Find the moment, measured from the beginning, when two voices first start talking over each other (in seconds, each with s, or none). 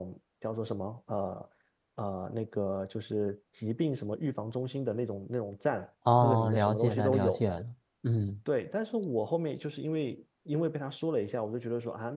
6.0 s